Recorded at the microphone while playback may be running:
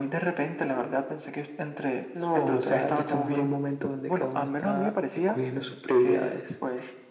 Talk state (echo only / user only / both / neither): echo only